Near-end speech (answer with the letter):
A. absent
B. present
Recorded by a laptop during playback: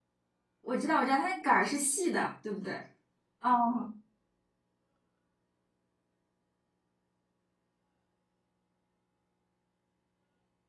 B